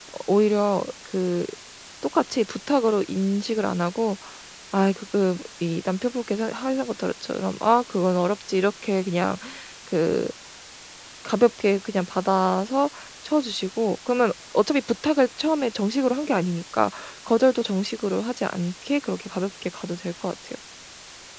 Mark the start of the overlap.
none

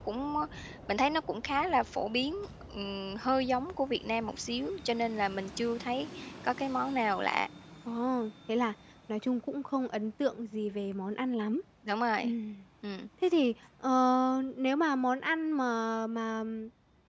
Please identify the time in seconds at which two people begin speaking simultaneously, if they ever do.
none

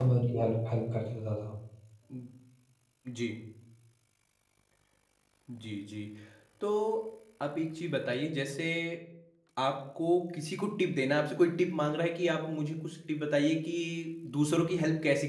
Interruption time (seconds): none

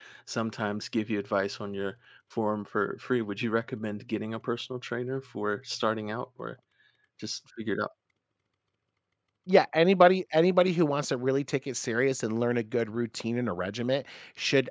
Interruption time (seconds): none

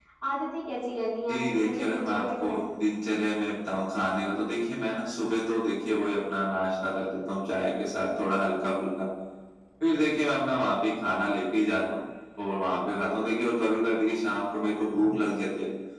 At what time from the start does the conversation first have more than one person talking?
1.3 s

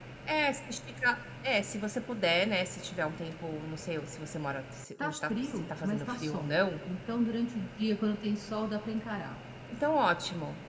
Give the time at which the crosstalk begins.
5.0 s

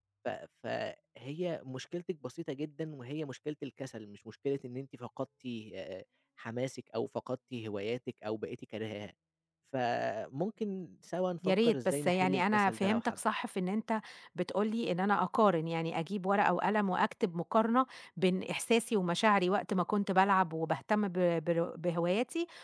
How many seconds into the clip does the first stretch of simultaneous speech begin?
11.4 s

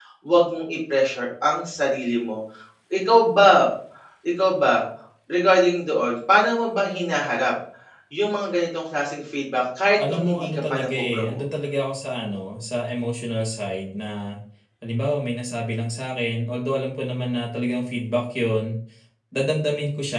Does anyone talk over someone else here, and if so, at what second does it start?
9.9 s

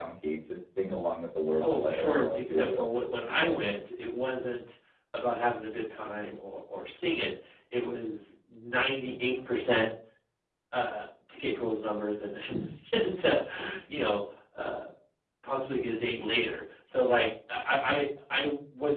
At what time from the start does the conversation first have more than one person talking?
1.5 s

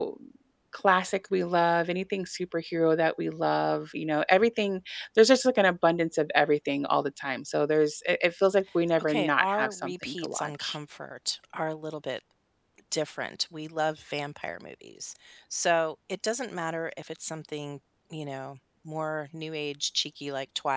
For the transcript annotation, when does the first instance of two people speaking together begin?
9.0 s

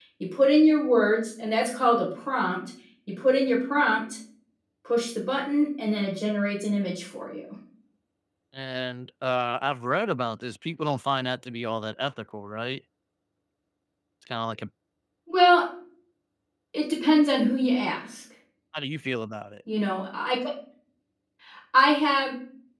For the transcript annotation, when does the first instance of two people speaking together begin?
none

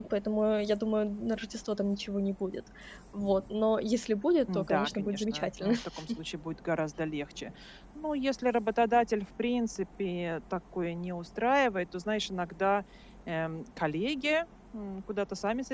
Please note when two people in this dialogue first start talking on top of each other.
4.5 s

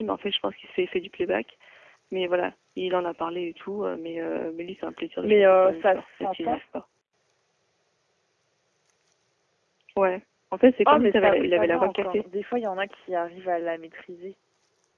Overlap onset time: 5.2 s

